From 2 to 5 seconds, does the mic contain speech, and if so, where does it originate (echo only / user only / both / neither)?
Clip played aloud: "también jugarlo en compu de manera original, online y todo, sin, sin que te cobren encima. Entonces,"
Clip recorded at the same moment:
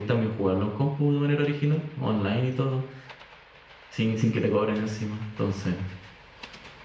echo only